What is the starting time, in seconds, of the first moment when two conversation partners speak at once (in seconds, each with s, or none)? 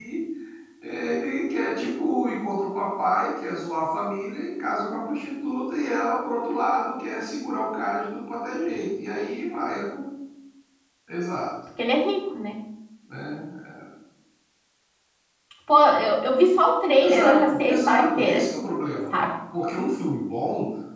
17.0 s